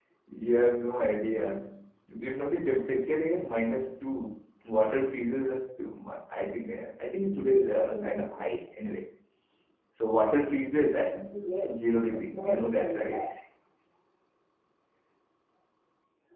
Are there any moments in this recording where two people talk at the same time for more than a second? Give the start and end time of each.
11.7-13.2

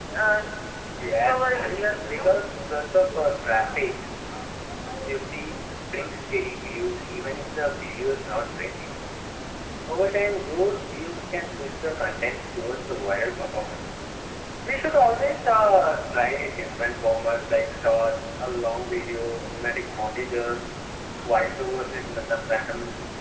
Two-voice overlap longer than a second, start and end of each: 1.0-2.3

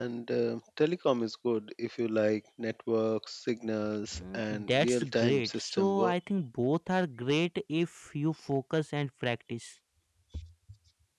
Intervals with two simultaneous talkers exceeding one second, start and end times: 4.1-6.1

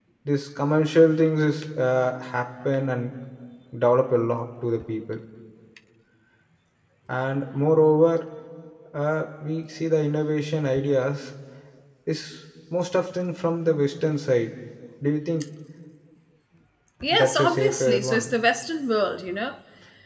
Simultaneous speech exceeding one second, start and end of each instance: 17.1-18.4

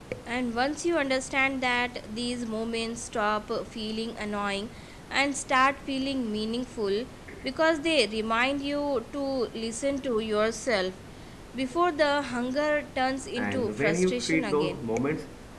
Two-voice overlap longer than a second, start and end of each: 13.4-14.9

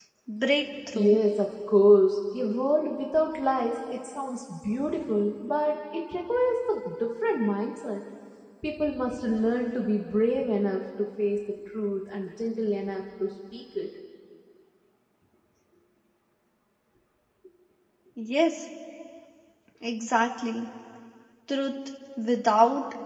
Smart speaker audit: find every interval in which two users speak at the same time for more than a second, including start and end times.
none

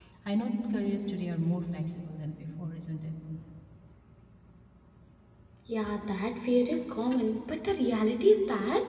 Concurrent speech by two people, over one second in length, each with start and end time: none

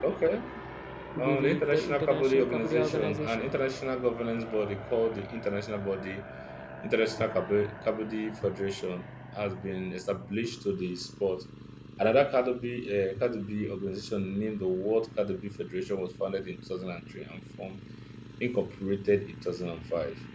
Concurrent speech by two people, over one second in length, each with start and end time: 1.2-3.5

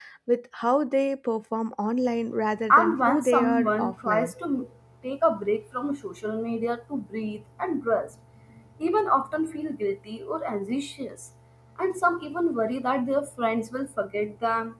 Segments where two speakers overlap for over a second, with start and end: 2.7-4.3

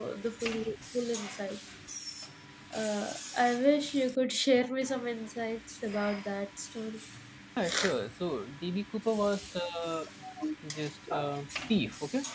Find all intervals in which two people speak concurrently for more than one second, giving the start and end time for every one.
none

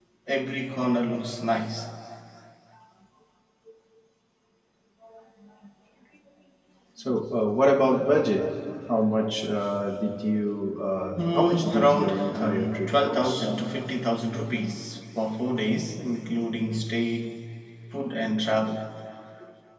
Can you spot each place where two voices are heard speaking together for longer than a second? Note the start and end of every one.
11.2-13.5

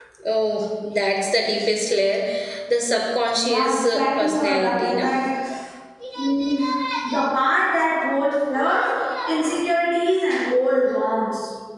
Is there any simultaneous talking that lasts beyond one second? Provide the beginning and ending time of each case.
3.4-5.1

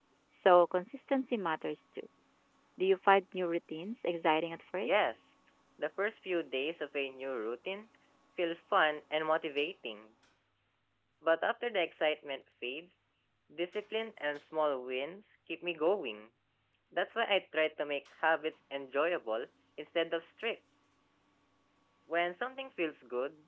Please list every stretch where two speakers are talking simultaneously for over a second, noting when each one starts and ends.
none

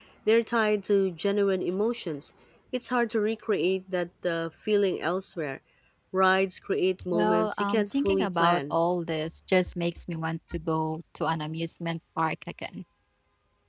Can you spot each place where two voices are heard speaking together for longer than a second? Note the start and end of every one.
7.1-8.8

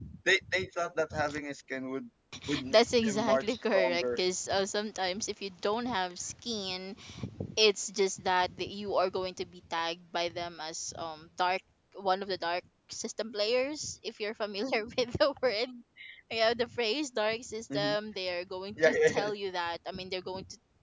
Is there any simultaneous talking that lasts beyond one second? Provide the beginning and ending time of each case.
2.7-4.2

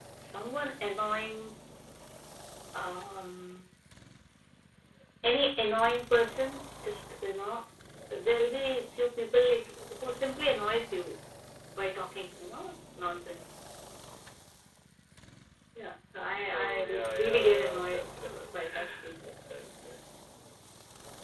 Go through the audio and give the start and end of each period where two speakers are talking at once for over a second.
16.5-18.3

